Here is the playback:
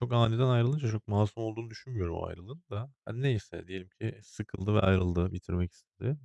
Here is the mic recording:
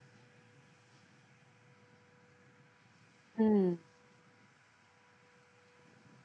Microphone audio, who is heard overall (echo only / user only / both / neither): user only